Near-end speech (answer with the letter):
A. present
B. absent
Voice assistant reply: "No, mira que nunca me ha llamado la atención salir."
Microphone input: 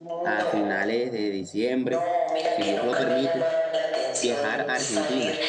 A